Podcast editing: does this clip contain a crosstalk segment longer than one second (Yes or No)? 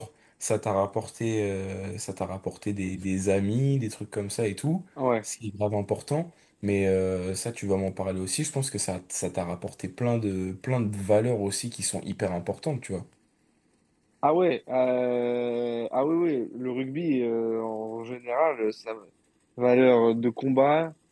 No